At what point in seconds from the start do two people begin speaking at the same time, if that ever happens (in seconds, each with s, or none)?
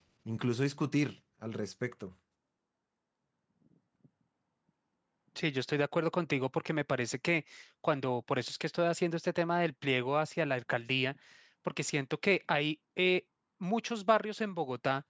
none